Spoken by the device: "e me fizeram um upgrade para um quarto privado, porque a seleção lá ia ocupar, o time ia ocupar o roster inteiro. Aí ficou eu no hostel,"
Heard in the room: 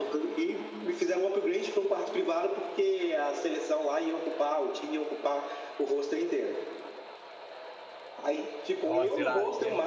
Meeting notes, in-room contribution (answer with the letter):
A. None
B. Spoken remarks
B